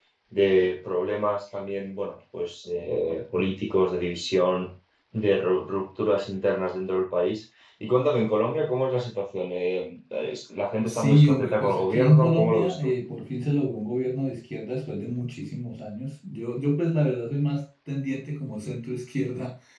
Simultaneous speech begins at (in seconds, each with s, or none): 10.9 s